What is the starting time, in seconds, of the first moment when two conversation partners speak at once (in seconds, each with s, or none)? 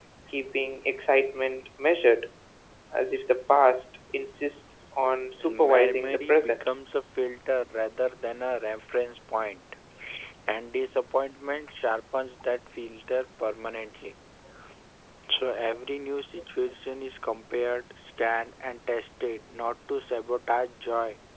5.4 s